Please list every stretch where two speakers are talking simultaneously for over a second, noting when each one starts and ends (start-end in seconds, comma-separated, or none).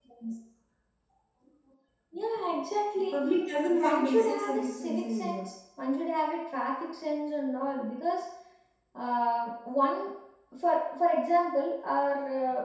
3.7-5.5